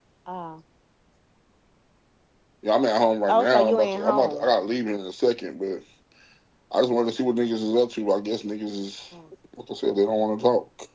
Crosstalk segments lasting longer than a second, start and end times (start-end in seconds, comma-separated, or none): 3.3-4.5